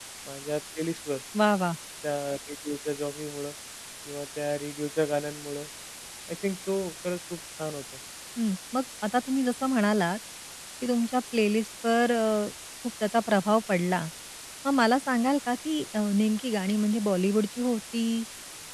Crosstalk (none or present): none